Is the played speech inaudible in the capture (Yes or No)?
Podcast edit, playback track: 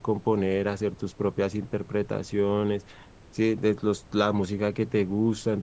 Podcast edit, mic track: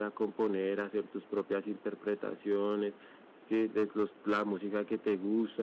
No